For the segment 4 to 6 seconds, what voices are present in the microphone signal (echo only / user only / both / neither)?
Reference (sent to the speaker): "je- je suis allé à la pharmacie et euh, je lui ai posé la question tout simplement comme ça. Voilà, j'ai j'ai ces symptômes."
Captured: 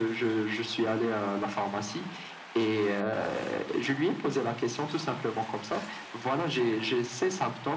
echo only